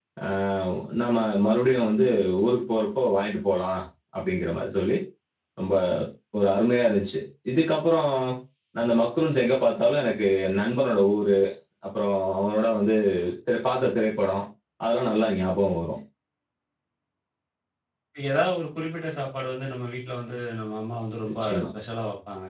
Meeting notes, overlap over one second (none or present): none